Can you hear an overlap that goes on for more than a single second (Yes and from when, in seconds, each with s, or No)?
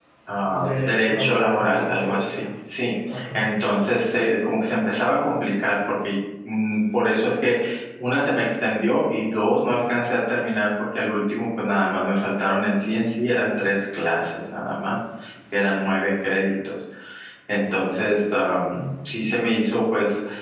Yes, from 0.6 s